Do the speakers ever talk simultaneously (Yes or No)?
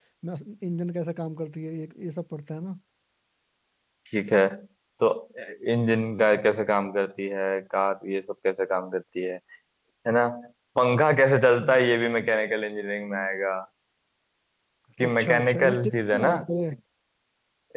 Yes